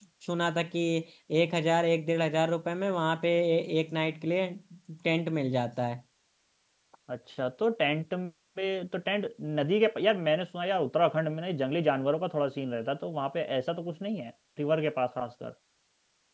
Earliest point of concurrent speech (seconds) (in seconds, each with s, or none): none